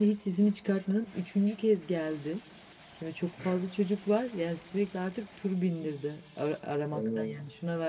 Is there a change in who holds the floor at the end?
No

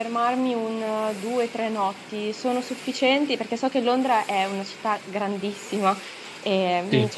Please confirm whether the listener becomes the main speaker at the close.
No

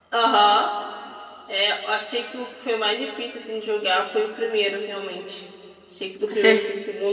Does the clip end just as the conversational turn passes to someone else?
No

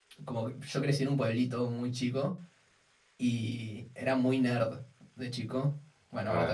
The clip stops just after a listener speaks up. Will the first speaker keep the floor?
No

